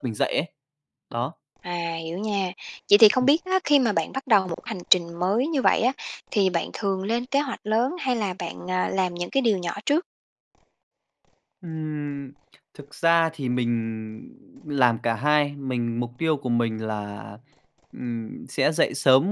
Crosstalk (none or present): none